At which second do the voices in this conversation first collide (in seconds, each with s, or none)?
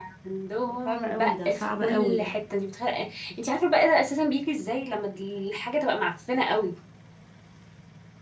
0.7 s